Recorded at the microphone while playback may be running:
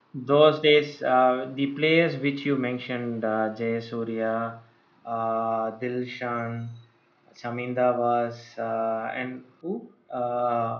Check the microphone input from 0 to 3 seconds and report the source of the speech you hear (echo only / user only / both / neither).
user only